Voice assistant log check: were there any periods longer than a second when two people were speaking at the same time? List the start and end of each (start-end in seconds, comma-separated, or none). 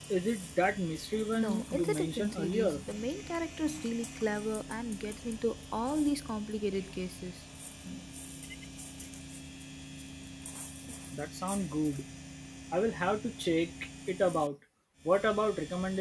1.3-2.8